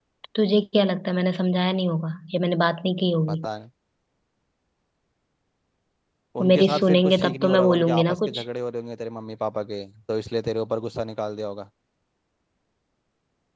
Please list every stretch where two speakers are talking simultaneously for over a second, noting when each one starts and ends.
6.4-8.4

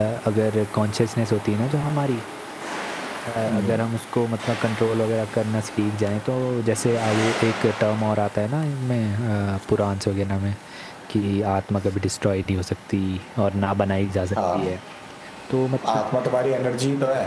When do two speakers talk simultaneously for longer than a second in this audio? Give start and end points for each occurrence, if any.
none

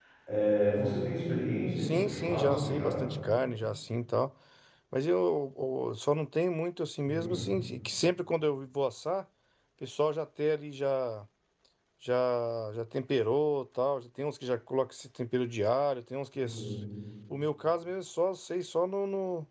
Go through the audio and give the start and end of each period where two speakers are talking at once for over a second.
1.8-3.0

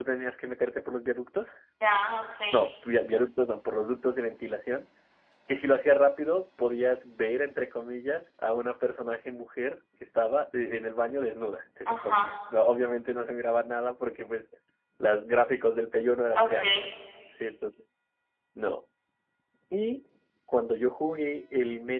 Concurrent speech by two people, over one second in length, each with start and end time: none

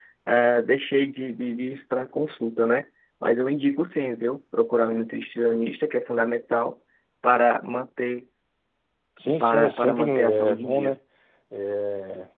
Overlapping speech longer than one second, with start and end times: 9.4-11.0

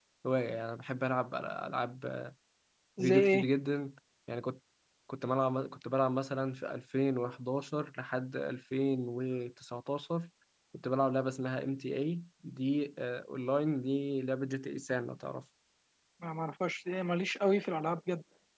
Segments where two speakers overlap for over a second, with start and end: none

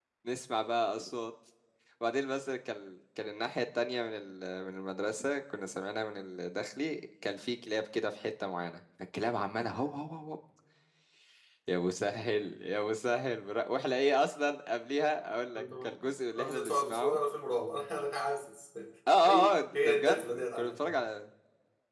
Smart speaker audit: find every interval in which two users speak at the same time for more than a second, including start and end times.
15.6-17.2, 19.2-21.0

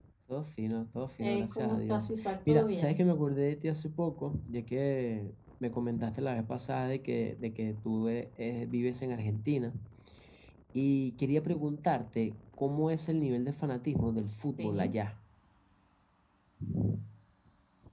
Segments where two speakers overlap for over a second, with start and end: 1.2-3.0

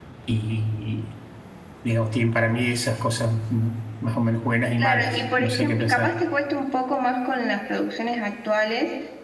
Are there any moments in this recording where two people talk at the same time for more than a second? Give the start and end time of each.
4.8-6.2

